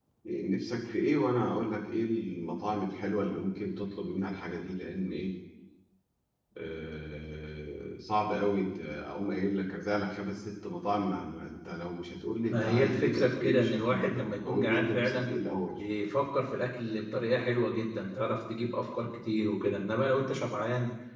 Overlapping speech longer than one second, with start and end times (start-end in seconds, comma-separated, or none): 12.5-15.3